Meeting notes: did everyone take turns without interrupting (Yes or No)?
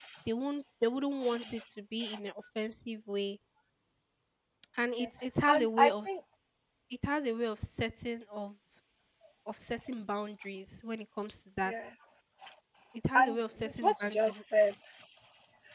No